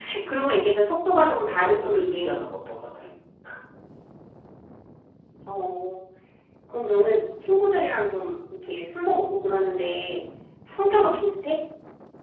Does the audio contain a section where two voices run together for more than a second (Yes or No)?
Yes